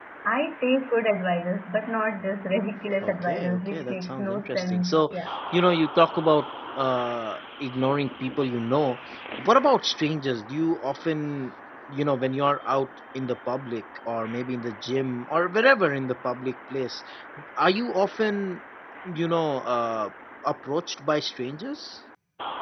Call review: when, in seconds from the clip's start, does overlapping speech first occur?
3.0 s

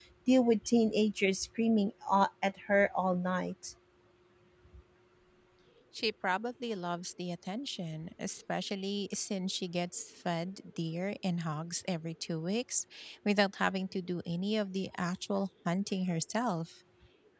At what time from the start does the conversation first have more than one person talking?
none

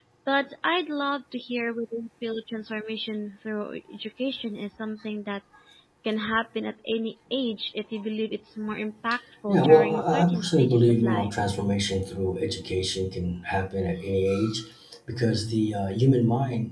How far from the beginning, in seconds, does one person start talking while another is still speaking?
9.5 s

